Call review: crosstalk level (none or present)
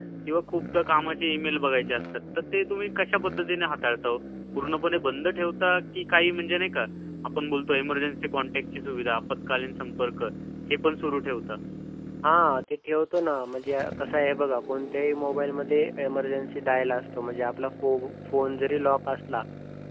none